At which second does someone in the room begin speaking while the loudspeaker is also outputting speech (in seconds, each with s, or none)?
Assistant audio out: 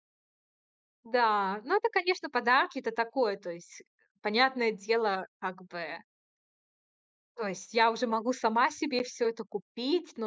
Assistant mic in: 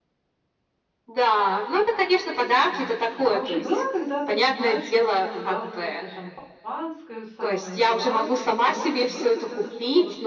2.7 s